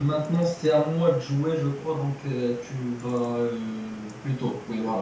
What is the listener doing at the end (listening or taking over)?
listening